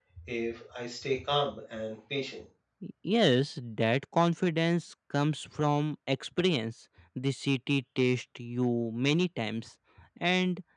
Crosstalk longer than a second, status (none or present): none